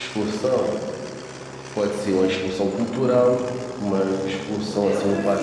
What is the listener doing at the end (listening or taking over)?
taking over